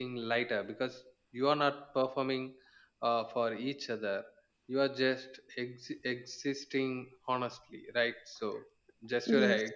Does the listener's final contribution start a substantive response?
No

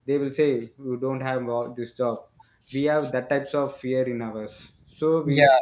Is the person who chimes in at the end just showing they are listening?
Yes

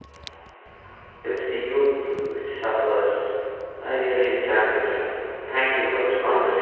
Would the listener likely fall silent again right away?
No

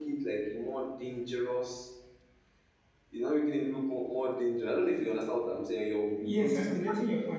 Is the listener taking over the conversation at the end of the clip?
Yes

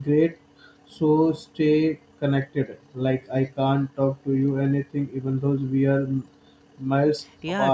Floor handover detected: Yes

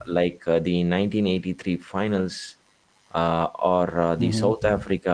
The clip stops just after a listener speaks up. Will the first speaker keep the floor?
Yes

